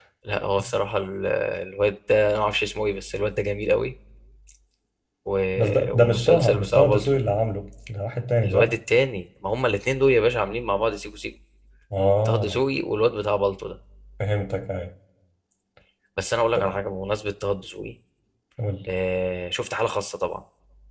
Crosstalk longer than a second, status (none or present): present